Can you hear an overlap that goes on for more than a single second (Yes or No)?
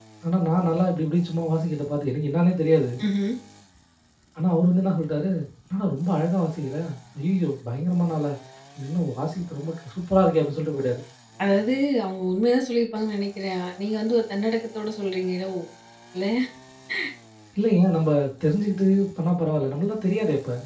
No